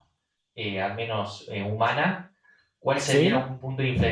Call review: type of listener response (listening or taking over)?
listening